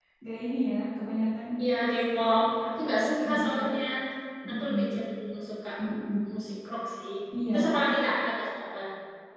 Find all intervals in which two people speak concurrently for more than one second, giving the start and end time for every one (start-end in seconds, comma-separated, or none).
2.1-3.5